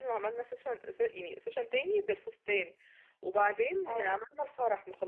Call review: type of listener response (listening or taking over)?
listening